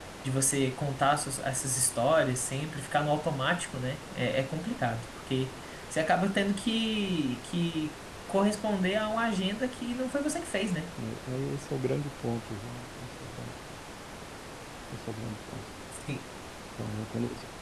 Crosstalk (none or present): none